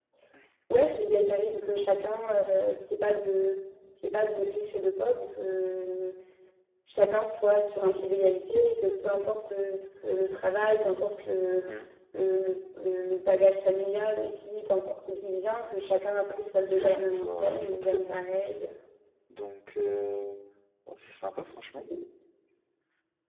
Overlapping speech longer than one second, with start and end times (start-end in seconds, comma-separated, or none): 16.7-18.2